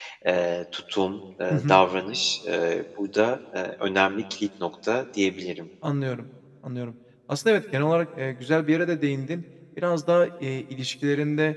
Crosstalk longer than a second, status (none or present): none